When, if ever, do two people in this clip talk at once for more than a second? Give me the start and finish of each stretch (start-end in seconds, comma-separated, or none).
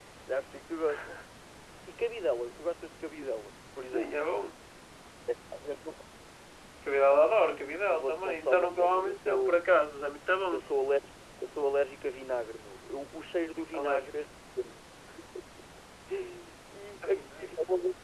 7.9-9.6